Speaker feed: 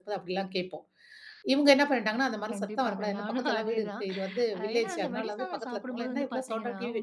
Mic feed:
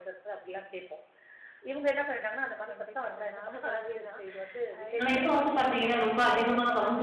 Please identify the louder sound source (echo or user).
user